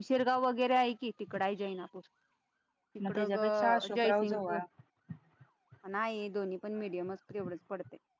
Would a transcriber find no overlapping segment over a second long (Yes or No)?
No